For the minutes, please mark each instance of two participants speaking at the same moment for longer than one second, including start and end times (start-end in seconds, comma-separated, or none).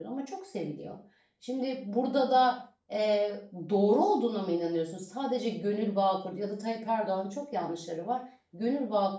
none